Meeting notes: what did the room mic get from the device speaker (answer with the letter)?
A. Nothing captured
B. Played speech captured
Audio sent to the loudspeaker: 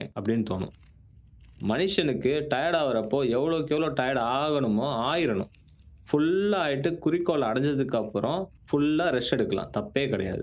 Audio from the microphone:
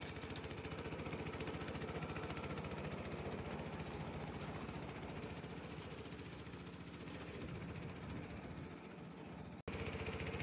A